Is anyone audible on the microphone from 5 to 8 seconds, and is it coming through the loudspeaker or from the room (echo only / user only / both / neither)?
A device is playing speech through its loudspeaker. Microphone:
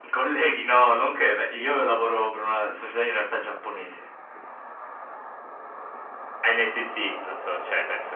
echo only